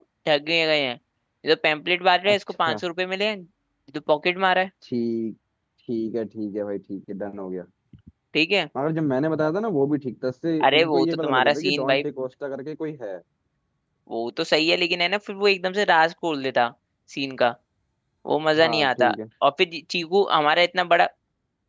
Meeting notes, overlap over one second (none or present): present